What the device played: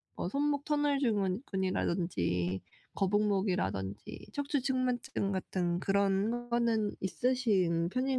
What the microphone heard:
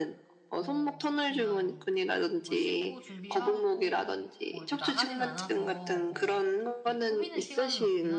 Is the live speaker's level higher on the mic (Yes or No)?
No